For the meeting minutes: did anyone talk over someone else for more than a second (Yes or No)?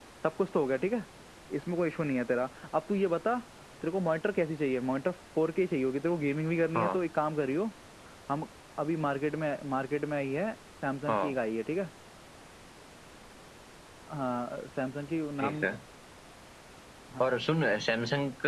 No